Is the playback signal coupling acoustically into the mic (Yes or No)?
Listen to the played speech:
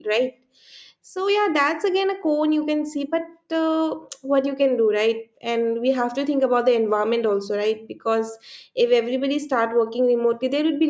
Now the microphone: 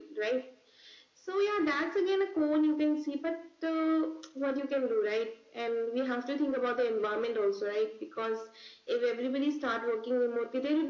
Yes